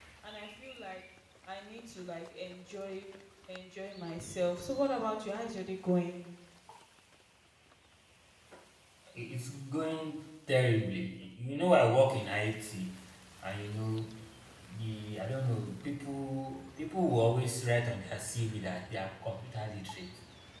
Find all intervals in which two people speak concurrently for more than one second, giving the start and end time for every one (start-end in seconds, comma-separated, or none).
none